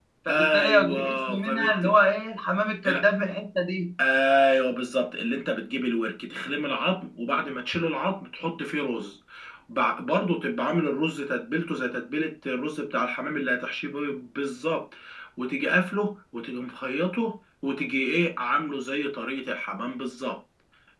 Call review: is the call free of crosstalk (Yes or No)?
No